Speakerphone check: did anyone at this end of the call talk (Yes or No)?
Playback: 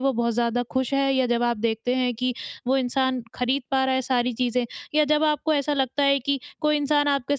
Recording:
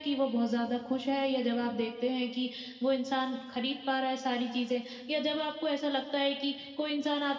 No